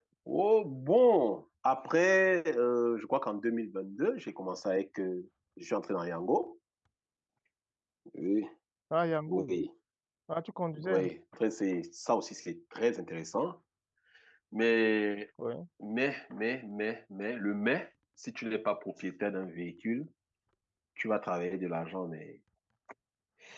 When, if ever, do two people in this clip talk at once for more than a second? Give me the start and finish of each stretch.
none

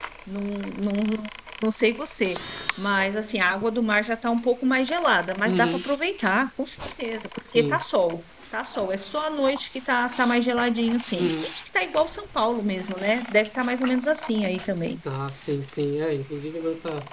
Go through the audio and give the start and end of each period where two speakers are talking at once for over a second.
none

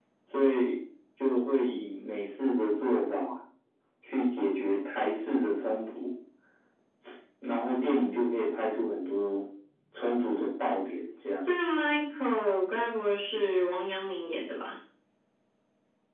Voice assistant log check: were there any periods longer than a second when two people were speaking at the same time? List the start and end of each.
none

